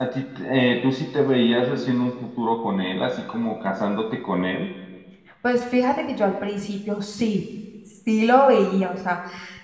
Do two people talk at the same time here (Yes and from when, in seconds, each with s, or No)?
No